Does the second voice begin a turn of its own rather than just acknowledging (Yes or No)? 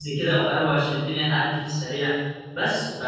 No